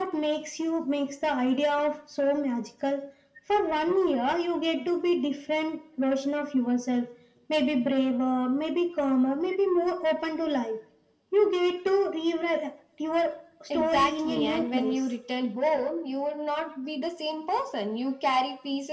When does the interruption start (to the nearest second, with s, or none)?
14 s